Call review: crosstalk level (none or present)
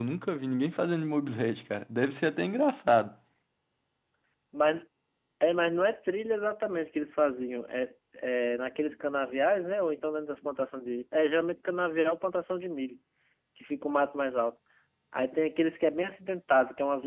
none